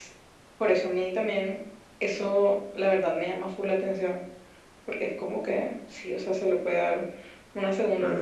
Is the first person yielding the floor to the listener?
Yes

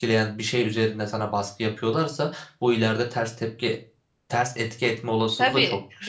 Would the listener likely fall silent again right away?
No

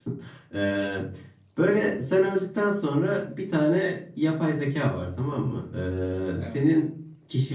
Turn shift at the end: No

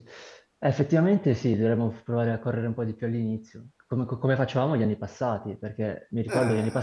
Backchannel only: Yes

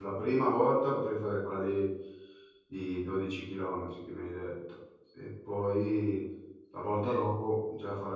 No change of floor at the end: Yes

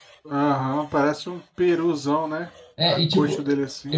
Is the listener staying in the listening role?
No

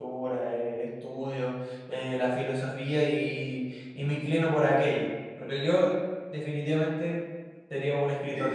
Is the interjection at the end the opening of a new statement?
Yes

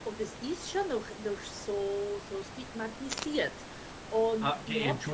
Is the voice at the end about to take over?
Yes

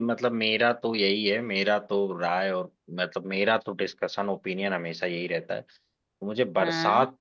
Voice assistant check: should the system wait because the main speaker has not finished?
Yes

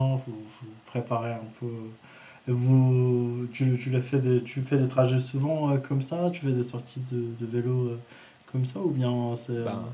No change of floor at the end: Yes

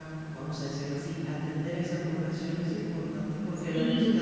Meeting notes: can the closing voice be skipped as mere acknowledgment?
Yes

